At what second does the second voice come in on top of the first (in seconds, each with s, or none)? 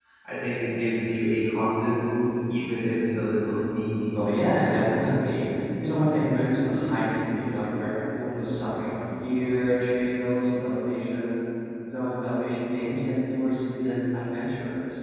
none